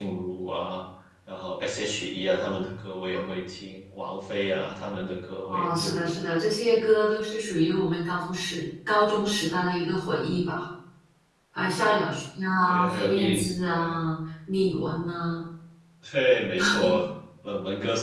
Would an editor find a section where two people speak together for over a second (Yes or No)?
Yes